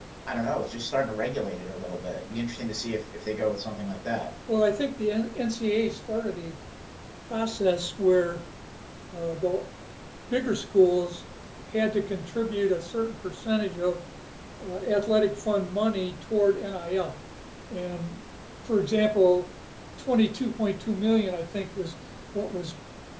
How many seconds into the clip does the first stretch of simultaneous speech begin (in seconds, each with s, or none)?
none